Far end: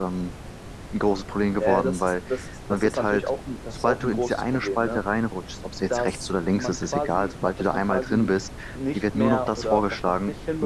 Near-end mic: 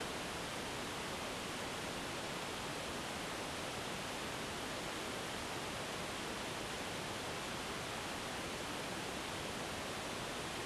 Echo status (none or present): none